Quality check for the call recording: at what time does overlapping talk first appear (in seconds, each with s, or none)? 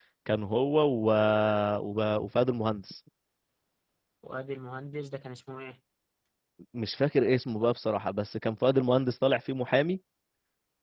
none